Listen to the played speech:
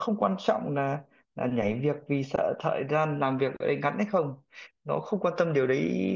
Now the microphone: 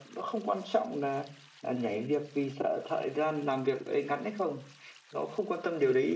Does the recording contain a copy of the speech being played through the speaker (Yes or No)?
Yes